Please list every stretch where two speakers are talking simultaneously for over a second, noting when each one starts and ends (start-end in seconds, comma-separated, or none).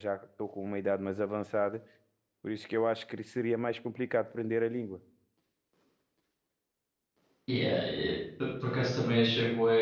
none